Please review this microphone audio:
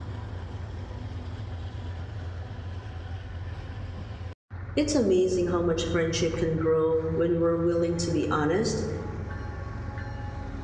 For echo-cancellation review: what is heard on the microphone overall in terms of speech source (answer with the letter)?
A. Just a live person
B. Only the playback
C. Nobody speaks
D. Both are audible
A